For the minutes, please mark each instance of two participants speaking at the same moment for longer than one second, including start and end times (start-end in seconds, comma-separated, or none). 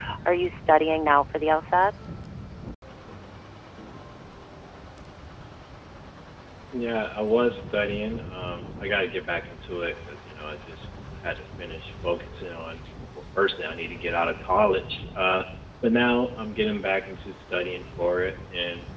none